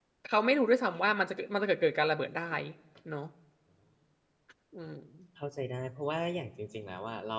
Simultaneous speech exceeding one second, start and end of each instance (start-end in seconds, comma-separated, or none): none